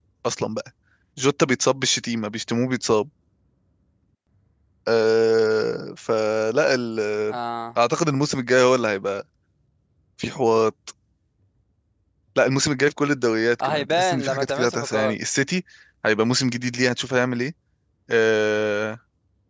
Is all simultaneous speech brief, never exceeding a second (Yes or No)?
No